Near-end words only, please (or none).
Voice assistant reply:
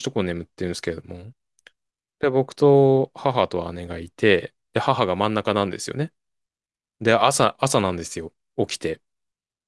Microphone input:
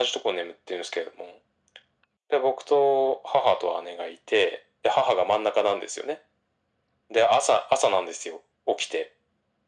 none